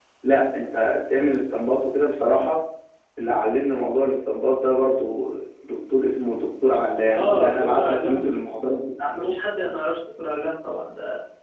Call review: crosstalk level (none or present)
present